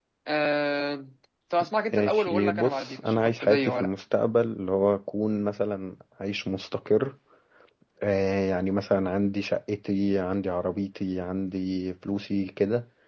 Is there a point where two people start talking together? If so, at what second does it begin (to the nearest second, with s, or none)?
2 s